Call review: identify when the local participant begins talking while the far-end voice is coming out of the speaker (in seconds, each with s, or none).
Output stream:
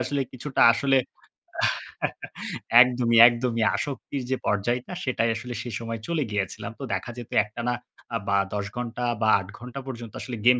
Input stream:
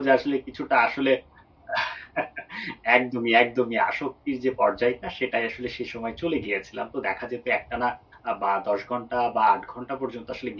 none